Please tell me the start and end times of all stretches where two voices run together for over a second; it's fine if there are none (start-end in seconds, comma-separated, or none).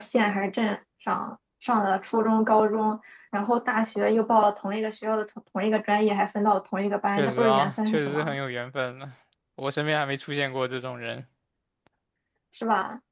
7.1-8.3